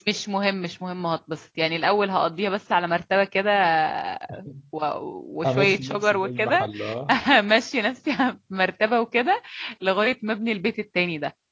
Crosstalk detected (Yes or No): Yes